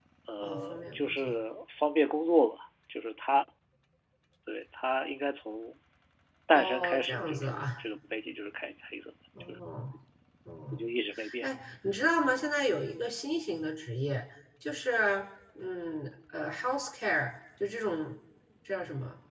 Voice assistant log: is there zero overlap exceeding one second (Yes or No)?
No